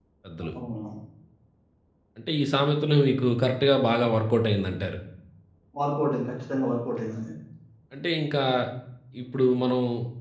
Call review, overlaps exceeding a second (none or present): none